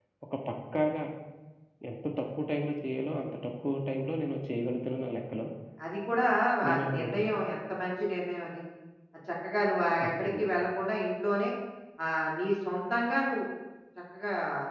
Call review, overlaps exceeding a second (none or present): none